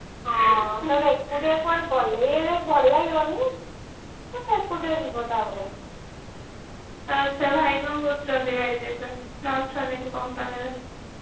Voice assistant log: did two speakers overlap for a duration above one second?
No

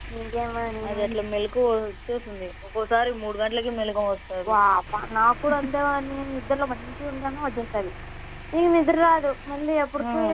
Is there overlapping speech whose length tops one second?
No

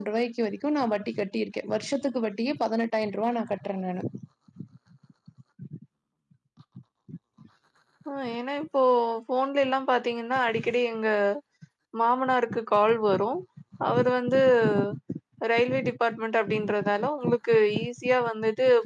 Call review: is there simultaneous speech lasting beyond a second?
No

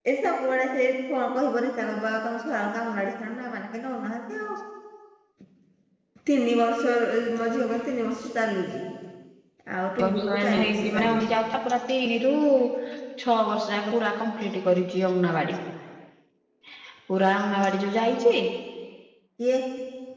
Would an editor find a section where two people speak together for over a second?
Yes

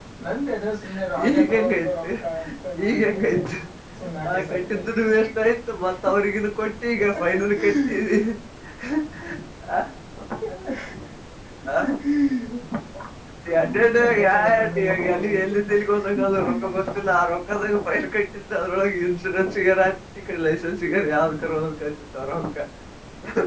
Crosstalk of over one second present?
Yes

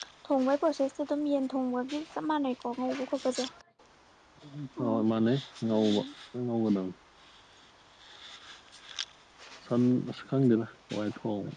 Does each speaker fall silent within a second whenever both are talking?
Yes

